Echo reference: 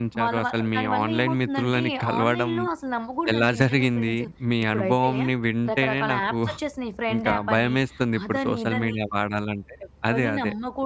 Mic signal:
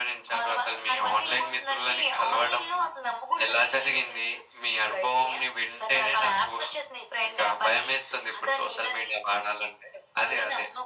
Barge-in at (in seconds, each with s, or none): none